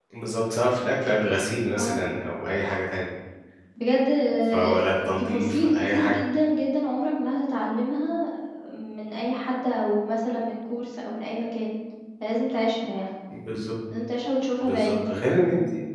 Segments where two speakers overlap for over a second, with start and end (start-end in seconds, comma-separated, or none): 4.5-6.2